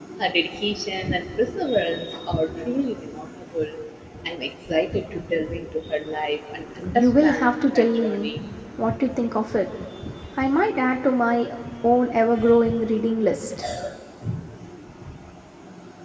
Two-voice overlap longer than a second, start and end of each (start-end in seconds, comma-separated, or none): 6.9-8.3